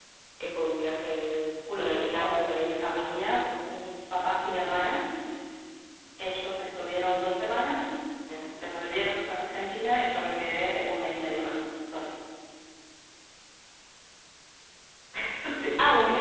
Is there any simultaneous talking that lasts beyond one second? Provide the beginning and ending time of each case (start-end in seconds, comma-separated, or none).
1.8-3.2